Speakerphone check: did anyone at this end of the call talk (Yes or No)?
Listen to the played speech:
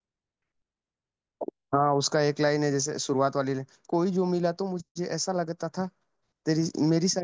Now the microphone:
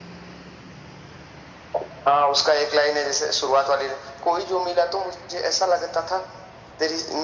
No